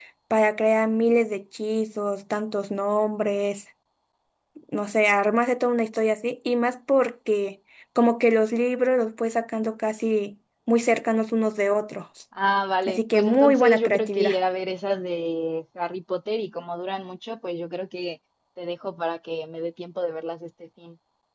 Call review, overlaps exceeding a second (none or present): present